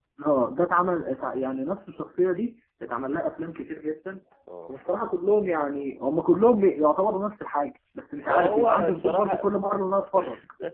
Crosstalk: present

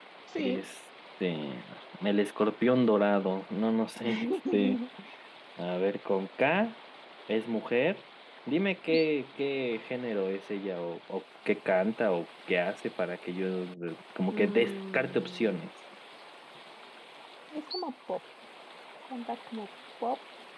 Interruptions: present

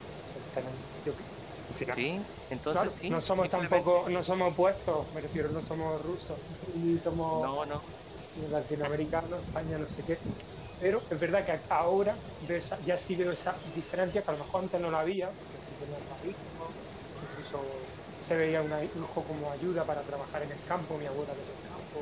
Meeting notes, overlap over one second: present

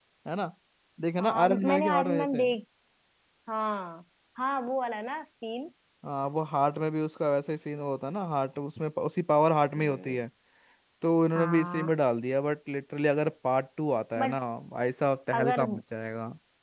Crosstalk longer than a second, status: present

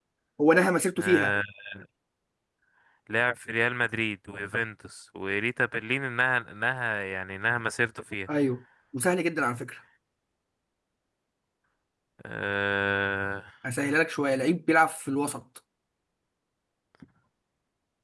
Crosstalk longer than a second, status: none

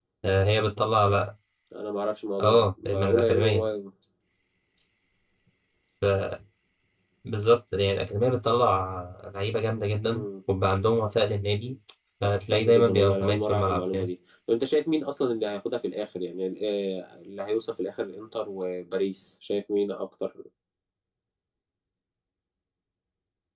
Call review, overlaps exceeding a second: present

